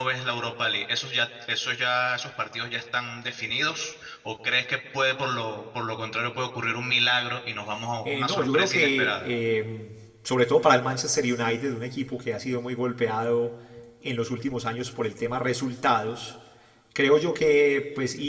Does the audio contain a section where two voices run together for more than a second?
Yes, from 8.1 s

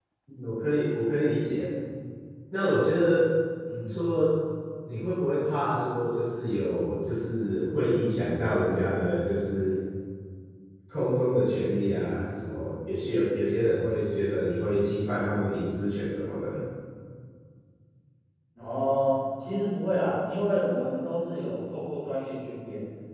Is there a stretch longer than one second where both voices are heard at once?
No

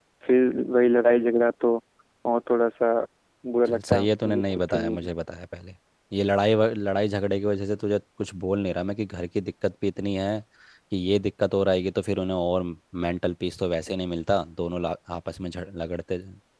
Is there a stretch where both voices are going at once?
Yes, from 3.7 s

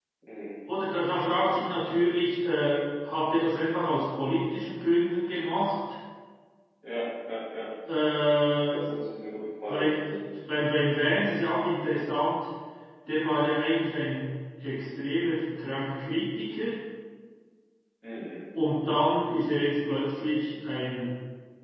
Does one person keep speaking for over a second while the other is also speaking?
No

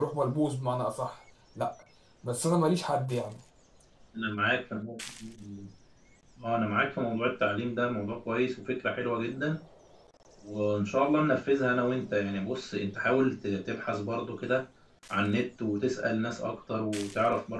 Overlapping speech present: No

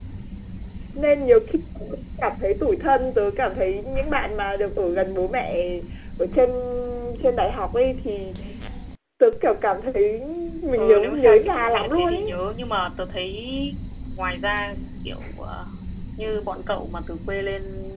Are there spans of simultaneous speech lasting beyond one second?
Yes, from 10.8 s

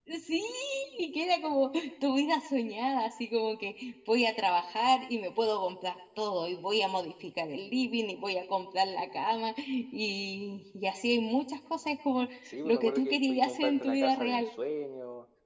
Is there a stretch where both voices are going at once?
Yes, from 12.6 s

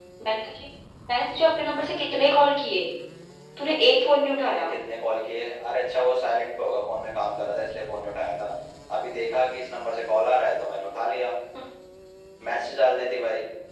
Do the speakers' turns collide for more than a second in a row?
No

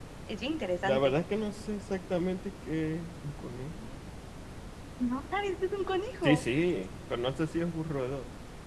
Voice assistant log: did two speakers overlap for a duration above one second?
No

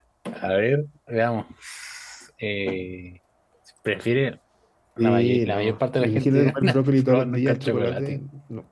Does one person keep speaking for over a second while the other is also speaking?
Yes, from 5.0 s

